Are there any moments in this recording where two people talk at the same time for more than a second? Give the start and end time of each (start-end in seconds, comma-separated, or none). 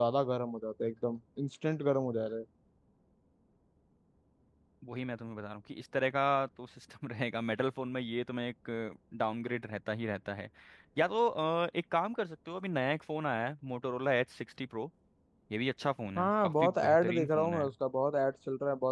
16.2-17.7